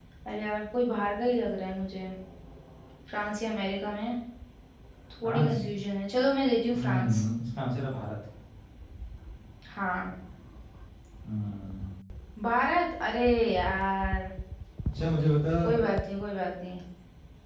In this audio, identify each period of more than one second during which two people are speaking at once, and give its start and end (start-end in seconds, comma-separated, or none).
none